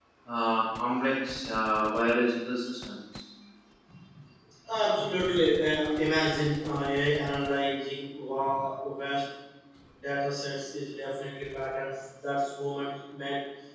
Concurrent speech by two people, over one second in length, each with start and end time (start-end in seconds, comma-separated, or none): none